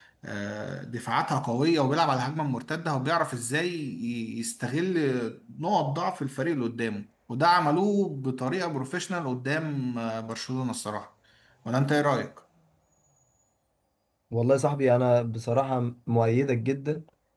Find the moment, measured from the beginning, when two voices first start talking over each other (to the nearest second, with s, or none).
none